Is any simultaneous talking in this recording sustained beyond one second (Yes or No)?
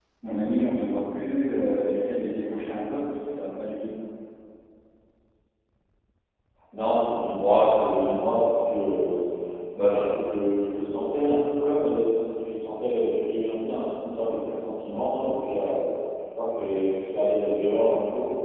No